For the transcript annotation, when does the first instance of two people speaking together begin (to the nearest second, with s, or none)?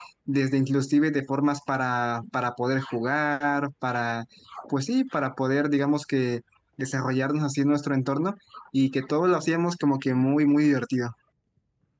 none